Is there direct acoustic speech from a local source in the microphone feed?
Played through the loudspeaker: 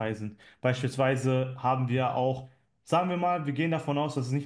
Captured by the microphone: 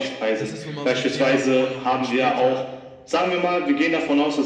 Yes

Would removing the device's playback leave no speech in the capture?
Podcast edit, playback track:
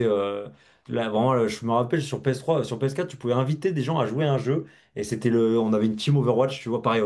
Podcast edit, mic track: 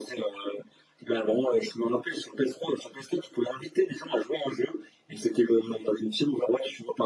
Yes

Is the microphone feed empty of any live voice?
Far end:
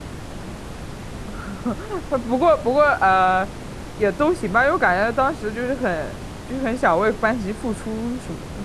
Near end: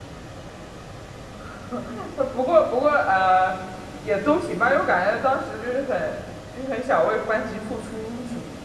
Yes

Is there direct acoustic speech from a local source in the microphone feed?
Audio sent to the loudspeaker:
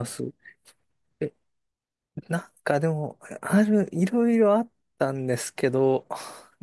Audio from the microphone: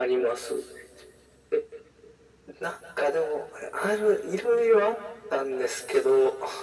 No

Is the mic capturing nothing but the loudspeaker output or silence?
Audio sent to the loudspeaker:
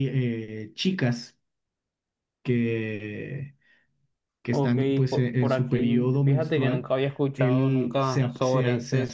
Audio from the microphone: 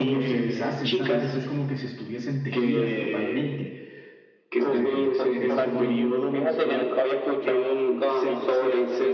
No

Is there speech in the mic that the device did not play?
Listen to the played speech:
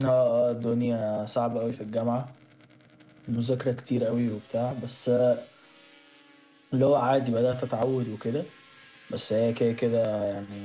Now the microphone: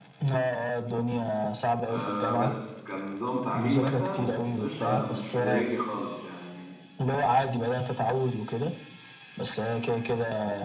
Yes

